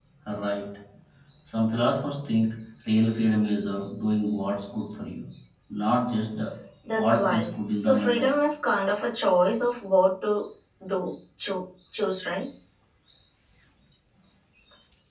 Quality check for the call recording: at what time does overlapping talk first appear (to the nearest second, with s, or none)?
7 s